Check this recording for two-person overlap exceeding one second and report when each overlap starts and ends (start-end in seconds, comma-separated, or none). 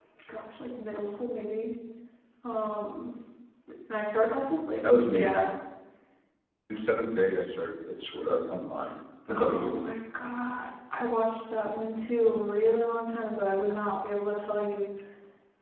none